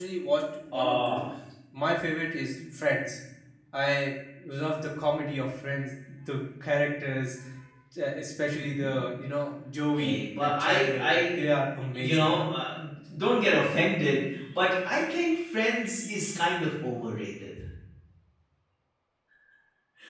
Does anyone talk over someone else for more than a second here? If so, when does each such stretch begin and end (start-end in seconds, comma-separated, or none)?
10.0-11.4